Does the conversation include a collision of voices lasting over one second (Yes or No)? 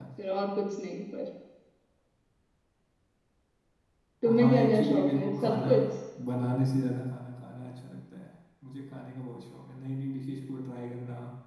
Yes